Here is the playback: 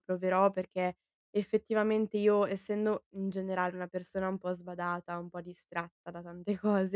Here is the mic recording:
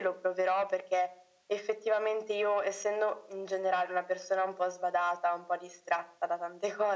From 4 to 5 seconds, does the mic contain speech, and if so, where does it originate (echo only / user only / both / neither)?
echo only